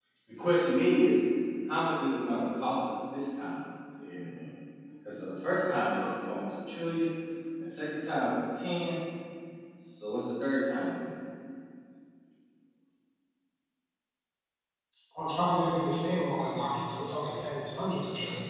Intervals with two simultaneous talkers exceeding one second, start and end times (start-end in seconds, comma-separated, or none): none